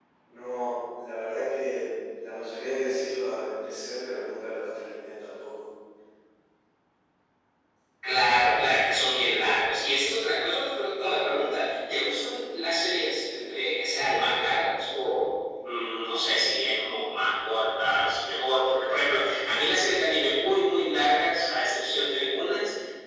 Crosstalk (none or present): none